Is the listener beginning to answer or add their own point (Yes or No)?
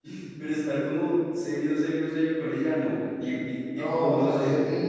Yes